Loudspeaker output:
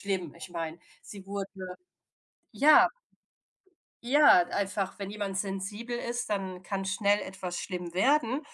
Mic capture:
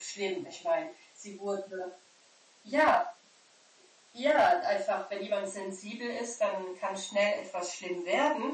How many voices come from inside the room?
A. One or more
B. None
B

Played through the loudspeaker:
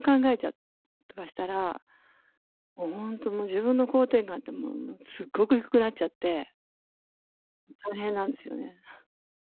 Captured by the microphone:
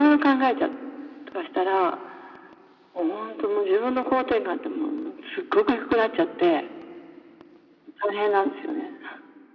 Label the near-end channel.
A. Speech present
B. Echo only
B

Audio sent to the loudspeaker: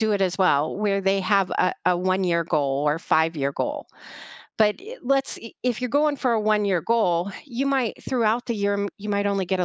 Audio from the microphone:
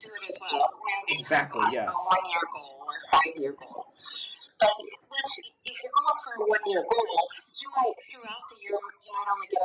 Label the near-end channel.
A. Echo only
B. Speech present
B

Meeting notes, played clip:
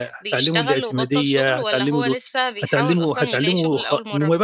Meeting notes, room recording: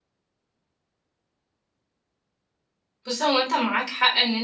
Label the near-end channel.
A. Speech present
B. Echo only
A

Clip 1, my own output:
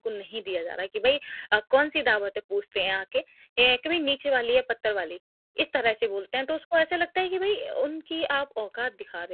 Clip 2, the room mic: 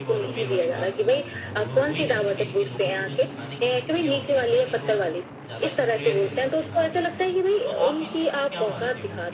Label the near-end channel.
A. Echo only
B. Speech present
B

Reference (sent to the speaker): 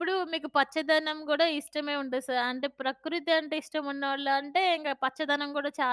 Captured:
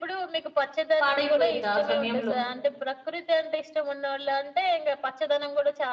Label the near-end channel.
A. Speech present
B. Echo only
A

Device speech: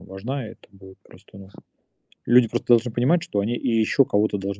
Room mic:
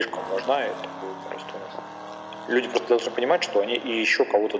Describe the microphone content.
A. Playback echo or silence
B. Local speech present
A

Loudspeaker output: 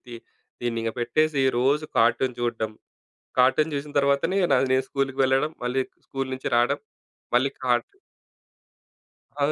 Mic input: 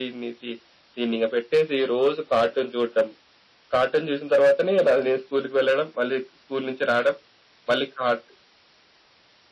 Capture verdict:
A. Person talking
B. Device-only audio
B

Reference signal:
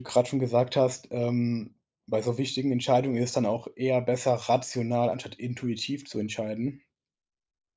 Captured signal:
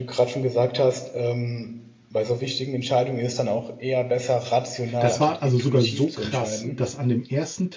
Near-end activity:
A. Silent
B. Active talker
B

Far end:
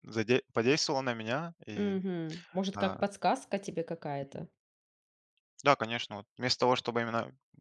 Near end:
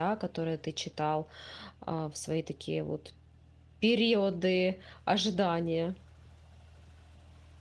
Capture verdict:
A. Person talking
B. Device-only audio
A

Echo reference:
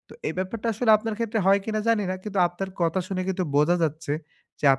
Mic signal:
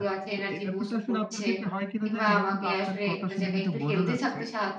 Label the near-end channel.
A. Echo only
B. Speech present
B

